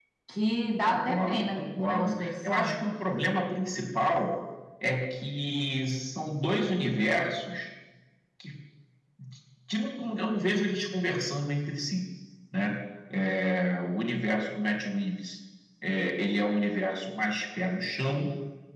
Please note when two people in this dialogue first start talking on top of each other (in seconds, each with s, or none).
0.8 s